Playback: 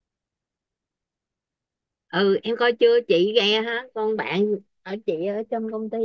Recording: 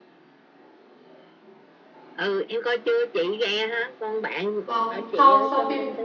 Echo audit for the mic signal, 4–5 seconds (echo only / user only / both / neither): both